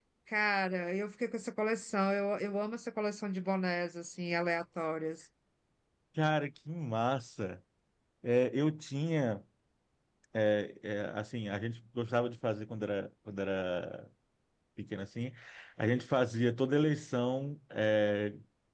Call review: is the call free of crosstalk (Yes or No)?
Yes